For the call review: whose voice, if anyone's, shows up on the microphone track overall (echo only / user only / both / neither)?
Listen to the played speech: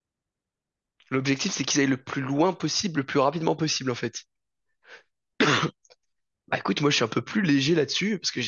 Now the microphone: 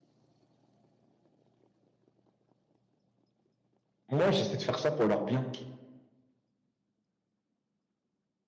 user only